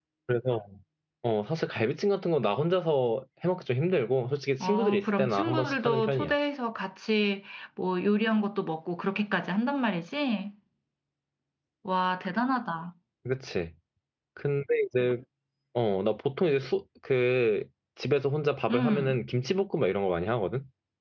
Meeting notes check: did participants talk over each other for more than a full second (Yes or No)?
Yes